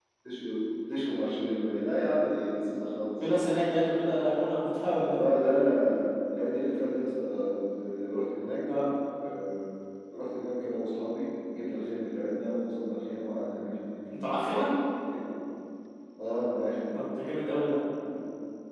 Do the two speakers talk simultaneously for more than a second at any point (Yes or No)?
No